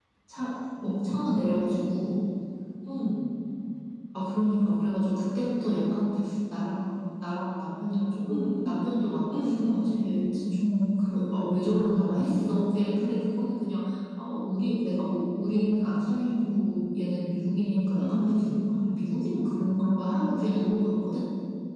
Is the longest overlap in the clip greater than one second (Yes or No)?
No